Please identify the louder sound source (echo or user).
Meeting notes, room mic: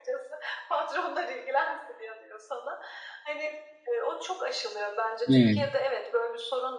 user